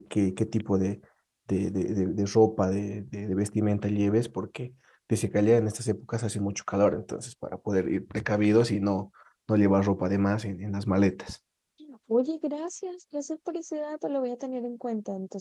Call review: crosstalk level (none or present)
none